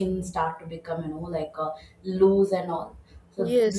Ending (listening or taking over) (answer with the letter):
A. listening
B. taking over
A